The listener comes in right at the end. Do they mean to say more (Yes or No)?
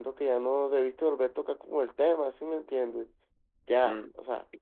Yes